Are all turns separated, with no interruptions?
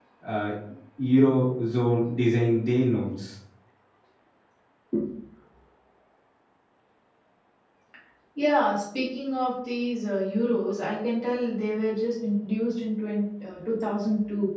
Yes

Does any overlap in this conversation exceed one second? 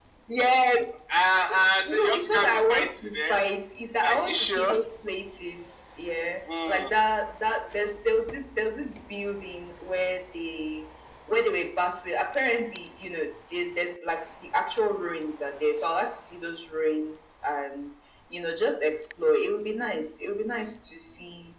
Yes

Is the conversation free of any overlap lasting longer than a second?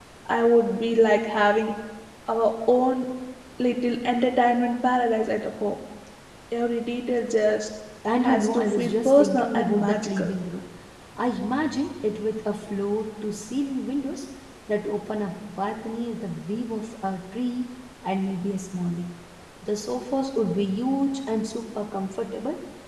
No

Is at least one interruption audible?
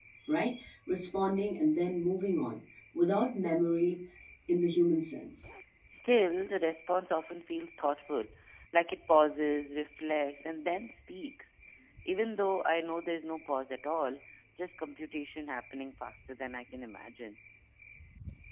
No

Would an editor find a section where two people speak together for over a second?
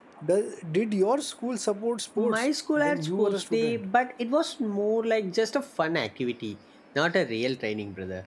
Yes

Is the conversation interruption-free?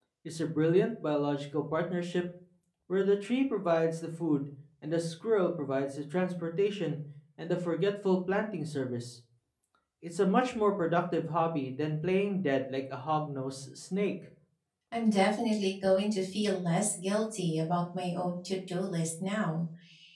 Yes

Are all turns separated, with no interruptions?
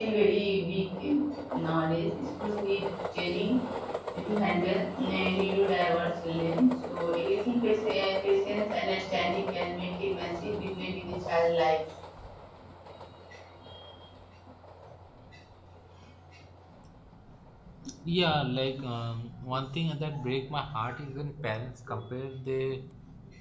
Yes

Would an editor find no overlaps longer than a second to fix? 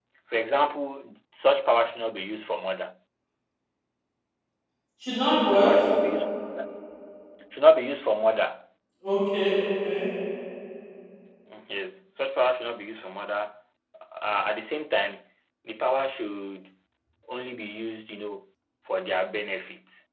Yes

